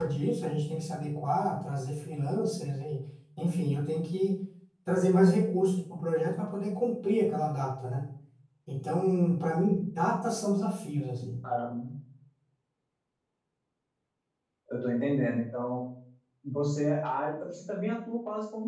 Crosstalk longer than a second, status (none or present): none